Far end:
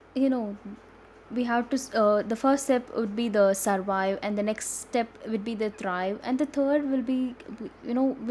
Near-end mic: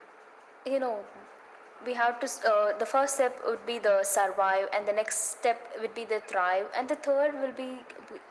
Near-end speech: none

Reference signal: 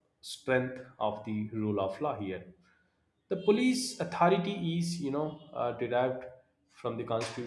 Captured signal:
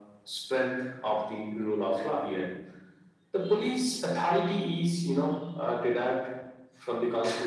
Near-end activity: none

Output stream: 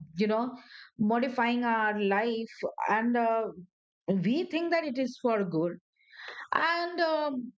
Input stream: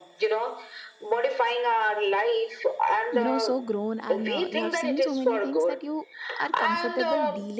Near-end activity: present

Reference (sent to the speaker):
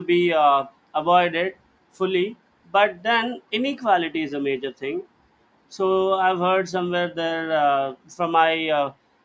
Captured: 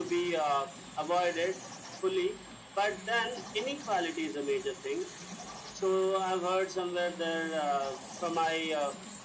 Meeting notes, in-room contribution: none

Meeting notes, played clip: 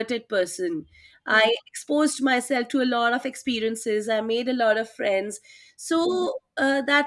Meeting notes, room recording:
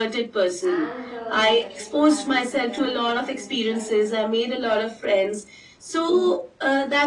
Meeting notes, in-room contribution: present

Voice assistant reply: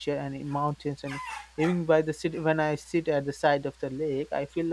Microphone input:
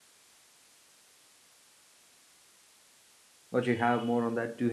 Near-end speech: present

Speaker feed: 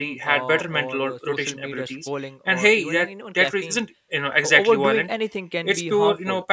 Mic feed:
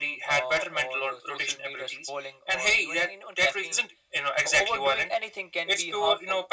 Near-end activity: none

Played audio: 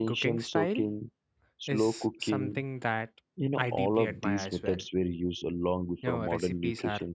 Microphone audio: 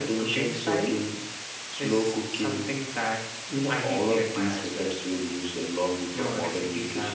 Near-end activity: none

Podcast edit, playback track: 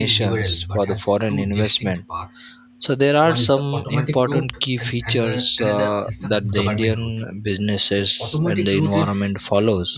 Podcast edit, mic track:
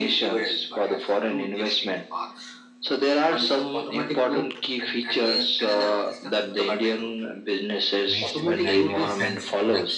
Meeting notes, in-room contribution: present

